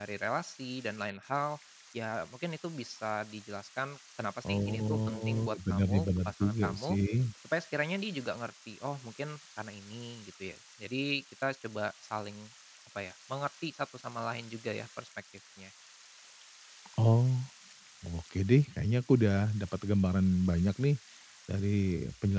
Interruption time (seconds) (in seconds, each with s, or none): 4.4 s